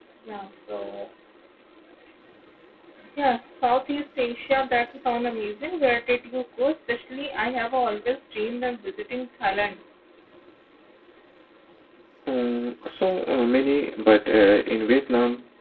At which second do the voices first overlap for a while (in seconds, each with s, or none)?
none